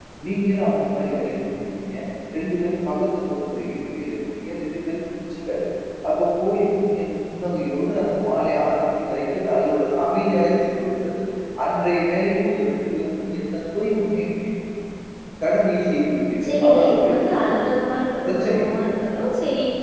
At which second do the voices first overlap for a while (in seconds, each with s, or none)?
16.4 s